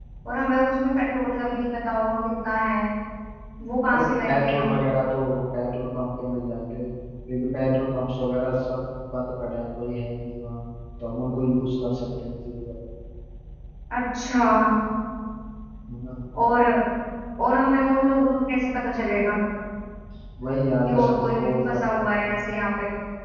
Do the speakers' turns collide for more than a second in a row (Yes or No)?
Yes